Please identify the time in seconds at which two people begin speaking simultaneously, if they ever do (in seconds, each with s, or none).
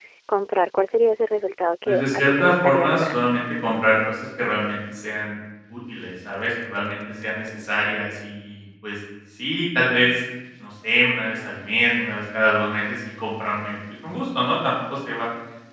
1.9 s